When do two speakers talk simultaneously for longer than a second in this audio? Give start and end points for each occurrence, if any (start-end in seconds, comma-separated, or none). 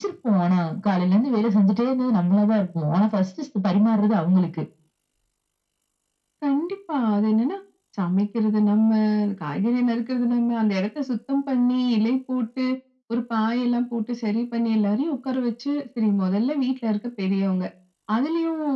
none